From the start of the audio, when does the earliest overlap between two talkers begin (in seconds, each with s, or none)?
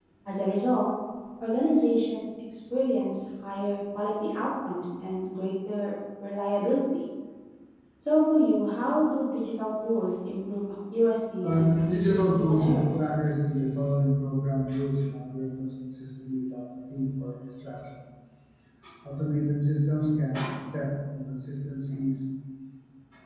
11.4 s